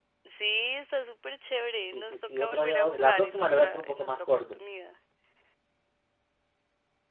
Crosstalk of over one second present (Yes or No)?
Yes